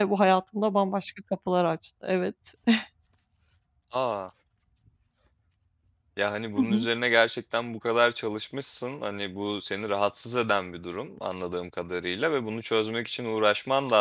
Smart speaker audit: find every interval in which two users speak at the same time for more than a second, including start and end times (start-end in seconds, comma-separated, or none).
none